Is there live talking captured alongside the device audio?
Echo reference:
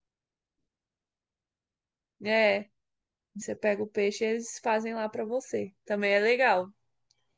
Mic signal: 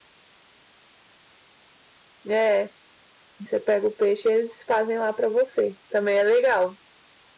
No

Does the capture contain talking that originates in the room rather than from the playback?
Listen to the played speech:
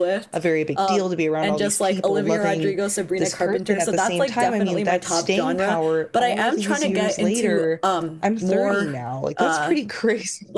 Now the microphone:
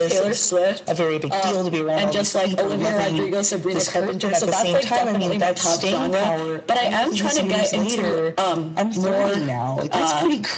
No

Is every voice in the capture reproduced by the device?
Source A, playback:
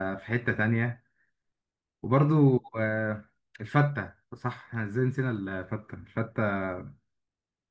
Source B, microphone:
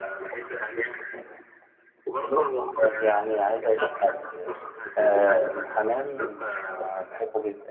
No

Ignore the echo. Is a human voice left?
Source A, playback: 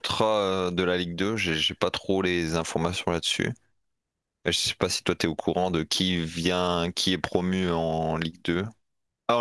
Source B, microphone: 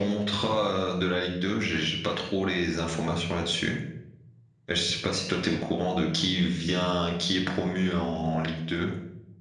No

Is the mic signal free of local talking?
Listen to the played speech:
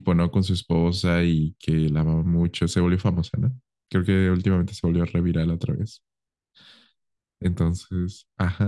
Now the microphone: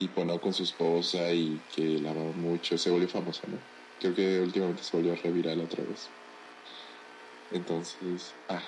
Yes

